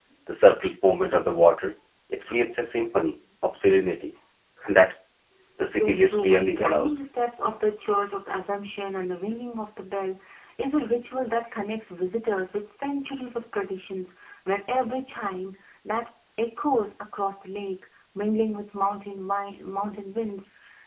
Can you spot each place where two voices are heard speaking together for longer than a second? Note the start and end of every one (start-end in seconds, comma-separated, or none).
5.6-7.0